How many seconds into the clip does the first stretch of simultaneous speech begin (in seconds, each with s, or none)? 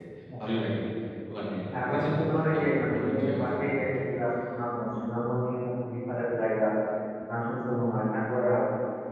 1.7 s